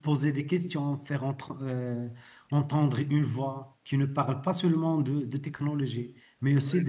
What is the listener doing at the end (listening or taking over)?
listening